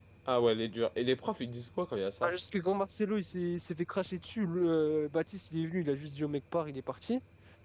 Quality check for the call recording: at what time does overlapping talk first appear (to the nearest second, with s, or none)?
none